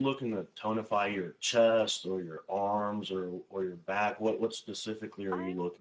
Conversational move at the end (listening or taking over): taking over